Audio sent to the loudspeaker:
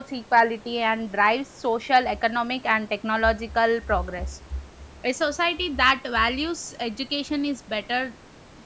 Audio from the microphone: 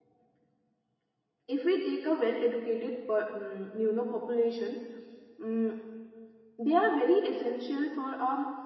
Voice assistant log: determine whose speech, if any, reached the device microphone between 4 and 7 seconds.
user only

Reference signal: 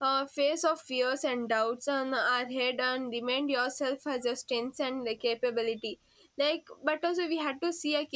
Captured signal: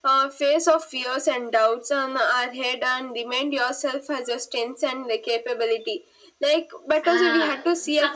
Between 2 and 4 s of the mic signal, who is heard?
echo only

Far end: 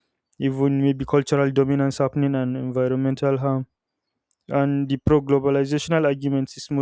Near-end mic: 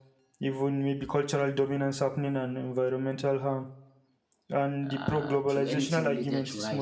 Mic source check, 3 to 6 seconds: both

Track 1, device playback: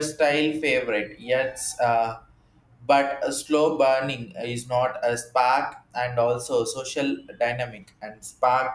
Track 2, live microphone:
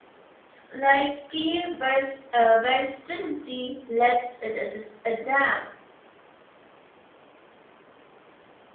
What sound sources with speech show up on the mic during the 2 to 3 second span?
user only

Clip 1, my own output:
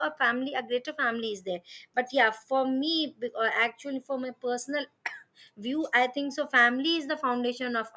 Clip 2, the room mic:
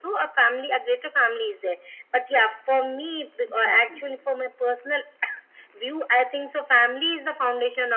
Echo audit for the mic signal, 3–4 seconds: both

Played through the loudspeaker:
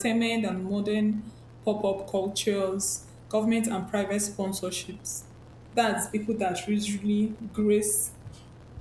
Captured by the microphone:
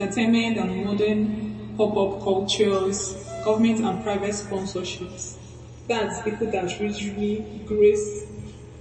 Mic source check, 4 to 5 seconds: echo only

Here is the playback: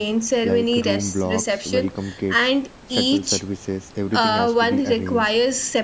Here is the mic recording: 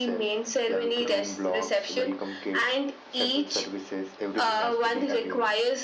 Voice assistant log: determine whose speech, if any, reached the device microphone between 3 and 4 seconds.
echo only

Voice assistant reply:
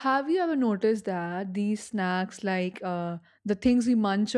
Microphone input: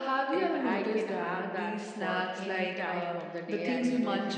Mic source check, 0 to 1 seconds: both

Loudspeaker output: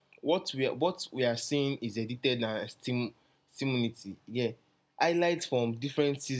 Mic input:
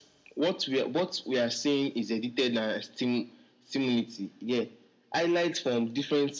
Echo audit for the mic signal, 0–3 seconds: echo only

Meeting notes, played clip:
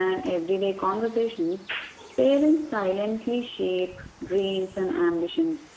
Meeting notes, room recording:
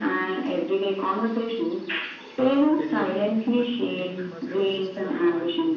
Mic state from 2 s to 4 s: both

